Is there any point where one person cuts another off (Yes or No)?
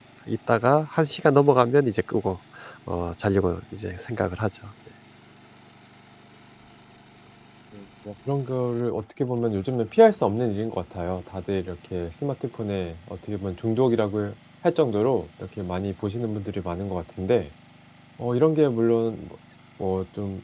No